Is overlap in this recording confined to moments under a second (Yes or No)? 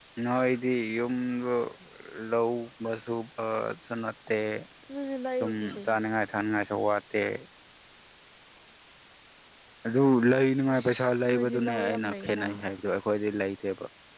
No